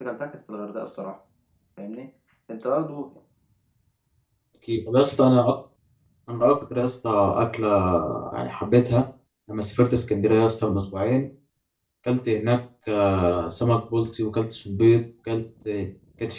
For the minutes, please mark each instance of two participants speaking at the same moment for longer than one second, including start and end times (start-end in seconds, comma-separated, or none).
none